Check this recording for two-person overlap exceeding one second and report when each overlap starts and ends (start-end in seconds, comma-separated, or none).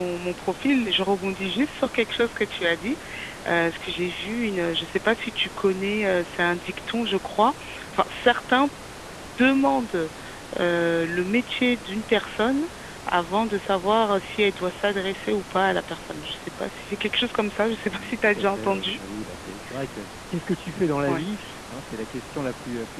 17.7-19.0